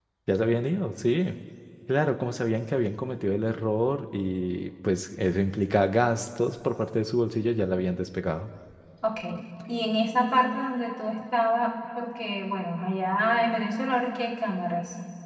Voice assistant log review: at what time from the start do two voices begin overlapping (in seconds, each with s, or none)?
none